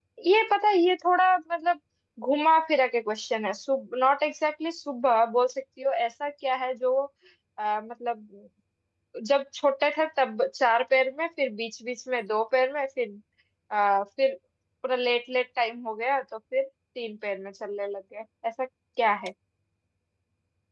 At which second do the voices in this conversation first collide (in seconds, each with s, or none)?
none